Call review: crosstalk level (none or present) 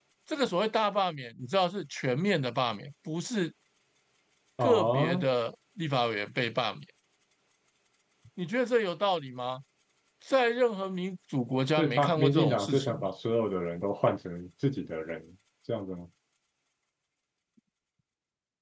present